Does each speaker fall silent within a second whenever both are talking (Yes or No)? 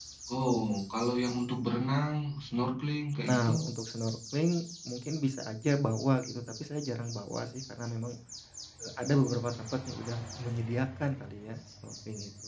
Yes